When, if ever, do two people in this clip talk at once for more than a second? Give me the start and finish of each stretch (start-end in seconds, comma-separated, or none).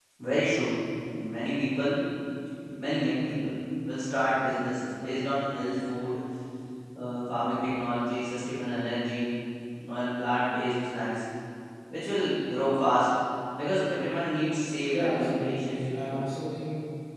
14.9-16.1